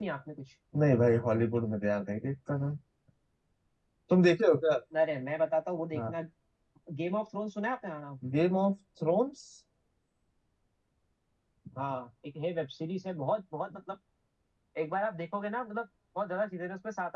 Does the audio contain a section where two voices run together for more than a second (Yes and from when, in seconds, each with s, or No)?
No